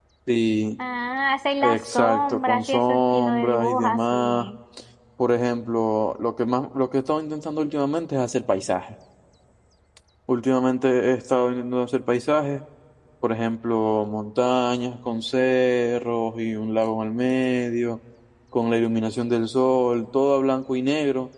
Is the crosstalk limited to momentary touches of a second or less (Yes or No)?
No